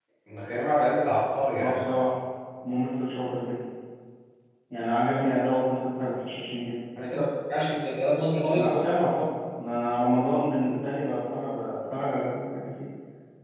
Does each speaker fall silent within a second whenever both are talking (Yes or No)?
Yes